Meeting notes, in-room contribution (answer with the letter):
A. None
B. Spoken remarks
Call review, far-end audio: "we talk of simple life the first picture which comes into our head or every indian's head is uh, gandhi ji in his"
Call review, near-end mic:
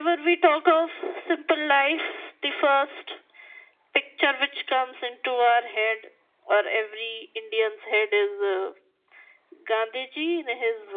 A